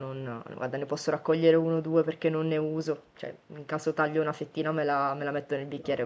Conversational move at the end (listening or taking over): listening